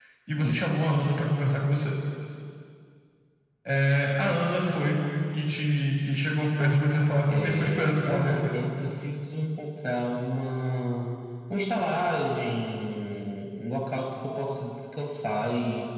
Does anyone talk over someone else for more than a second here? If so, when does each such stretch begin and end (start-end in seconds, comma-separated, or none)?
7.3-8.6